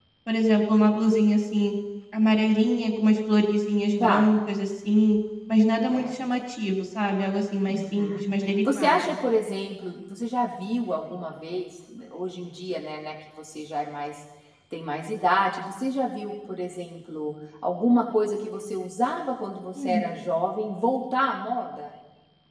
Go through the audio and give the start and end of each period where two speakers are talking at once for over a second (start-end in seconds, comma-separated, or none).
none